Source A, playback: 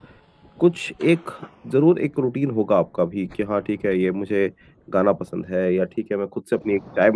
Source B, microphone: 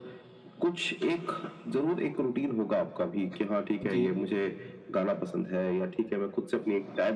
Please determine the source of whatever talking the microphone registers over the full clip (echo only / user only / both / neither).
both